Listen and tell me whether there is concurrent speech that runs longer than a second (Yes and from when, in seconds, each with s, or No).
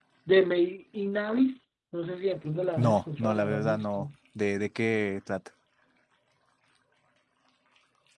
Yes, from 2.8 s